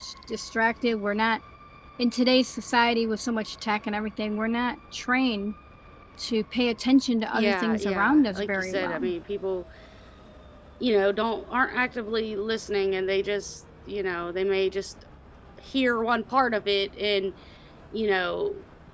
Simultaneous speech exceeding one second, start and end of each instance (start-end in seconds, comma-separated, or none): 7.3-9.1